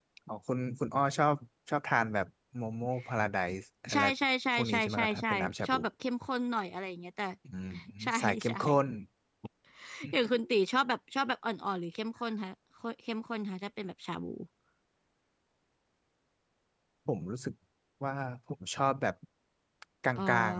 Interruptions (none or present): present